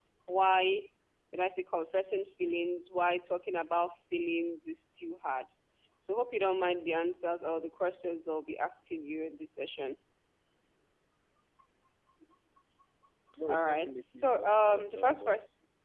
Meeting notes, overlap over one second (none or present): present